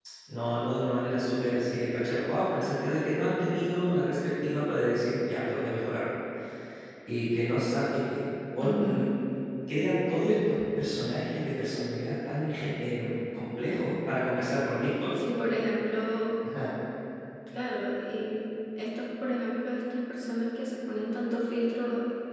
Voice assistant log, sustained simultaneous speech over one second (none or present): none